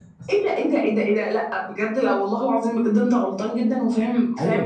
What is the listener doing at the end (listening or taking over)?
taking over